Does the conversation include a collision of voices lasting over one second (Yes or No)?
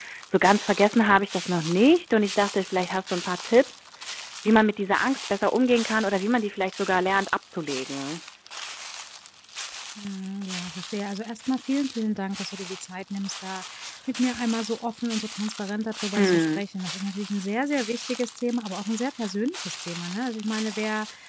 No